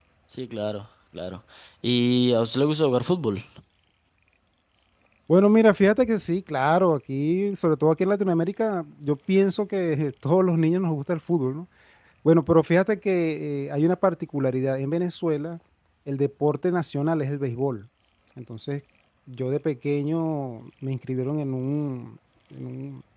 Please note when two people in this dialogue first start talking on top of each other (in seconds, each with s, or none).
none